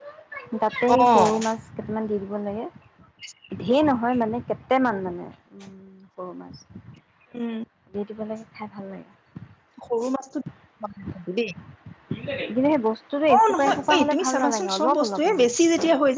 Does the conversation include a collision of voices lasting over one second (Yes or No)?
Yes